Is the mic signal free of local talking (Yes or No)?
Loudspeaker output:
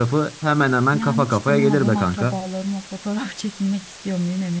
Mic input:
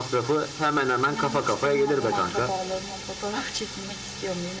Yes